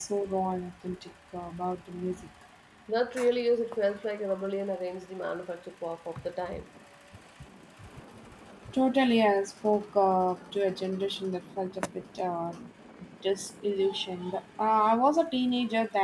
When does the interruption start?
none

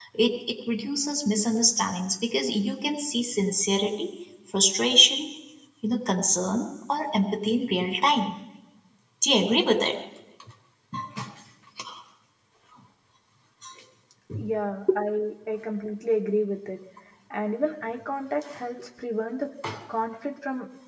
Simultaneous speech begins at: none

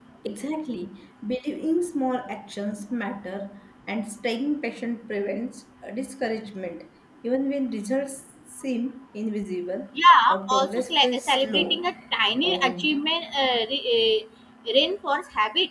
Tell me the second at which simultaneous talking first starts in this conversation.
10.3 s

